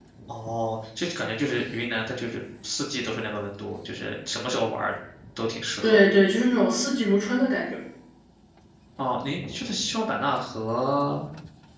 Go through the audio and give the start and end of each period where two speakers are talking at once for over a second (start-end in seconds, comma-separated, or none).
none